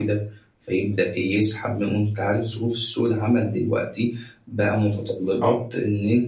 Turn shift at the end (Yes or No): No